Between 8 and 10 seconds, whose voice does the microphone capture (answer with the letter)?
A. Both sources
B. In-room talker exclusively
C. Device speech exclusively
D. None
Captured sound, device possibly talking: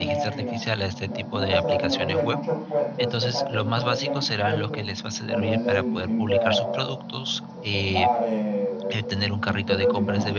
A